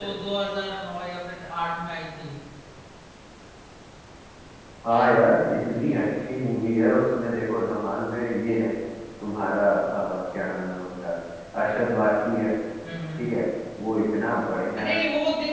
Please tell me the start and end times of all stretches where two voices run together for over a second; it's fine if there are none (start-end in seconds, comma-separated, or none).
none